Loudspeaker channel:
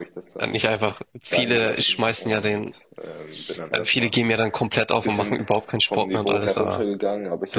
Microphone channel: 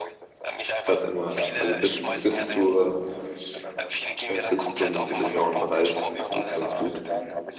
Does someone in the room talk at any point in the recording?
Yes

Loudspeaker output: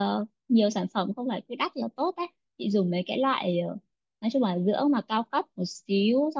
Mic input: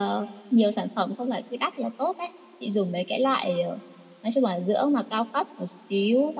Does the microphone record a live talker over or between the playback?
No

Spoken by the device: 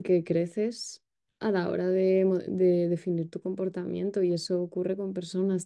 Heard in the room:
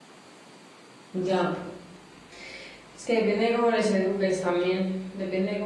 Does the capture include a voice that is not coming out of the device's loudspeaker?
Yes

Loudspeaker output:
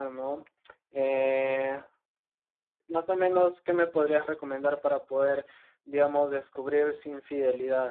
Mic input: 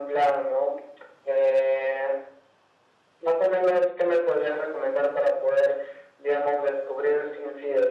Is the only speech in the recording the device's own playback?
Yes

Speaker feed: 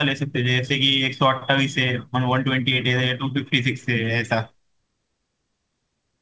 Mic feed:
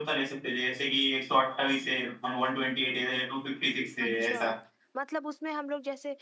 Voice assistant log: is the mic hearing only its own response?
No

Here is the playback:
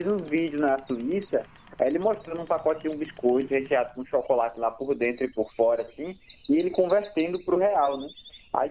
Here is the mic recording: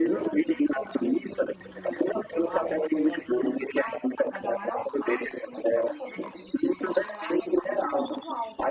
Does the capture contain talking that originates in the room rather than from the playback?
Yes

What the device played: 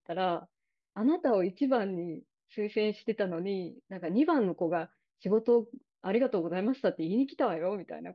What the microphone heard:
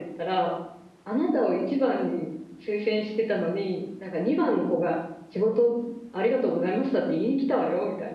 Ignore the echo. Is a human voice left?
No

